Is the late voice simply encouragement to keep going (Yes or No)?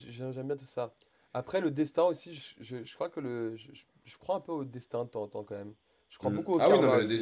No